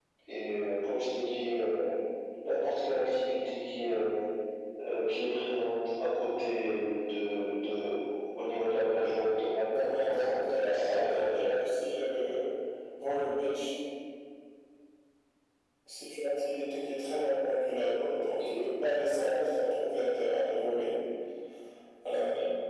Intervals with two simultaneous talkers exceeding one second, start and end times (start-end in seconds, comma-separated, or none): 9.8-11.5